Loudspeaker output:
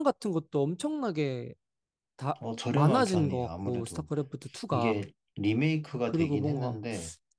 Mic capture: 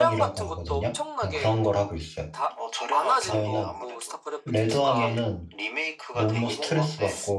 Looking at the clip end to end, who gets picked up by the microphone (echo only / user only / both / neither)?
both